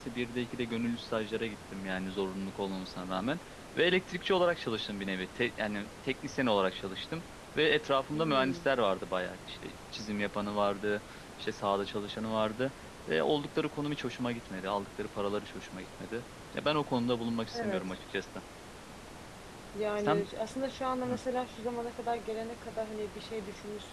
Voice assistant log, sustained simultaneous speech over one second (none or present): none